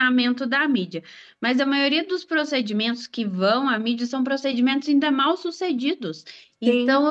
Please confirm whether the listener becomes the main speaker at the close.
No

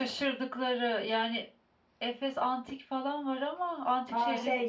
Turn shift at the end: Yes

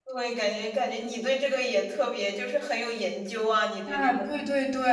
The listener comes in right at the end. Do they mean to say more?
Yes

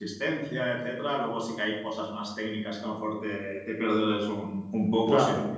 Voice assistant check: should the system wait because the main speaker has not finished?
Yes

